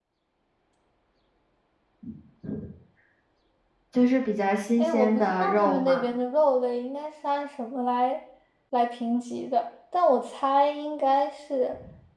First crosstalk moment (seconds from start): 4.8 s

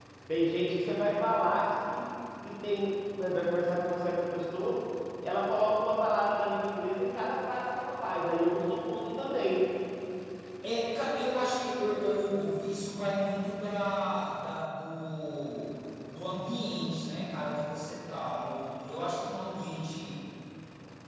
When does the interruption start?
none

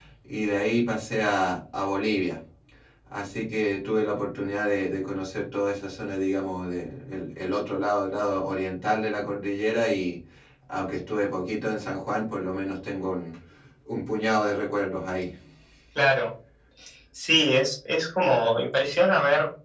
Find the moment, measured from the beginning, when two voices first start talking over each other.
none

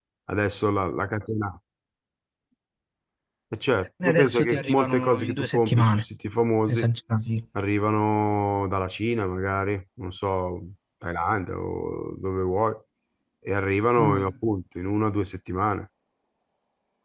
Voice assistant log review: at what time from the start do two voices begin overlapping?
4.0 s

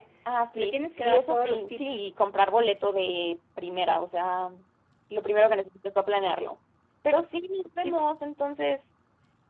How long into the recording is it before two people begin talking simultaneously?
0.6 s

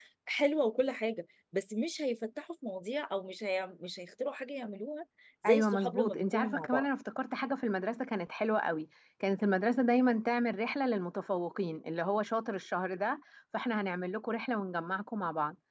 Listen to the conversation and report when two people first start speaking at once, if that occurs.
5.4 s

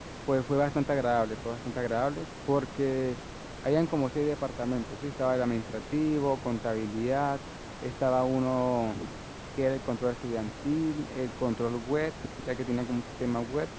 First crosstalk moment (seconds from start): none

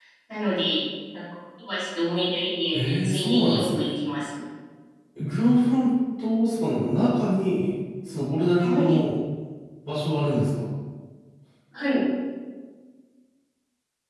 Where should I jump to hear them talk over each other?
2.7 s

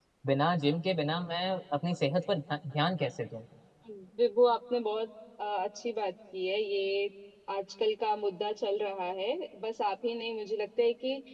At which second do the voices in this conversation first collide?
none

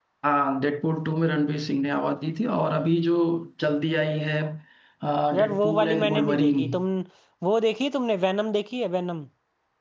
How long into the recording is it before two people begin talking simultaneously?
5.4 s

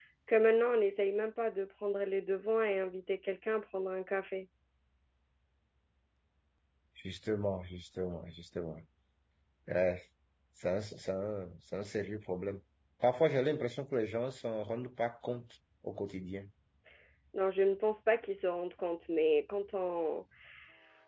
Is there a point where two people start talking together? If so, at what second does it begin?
none

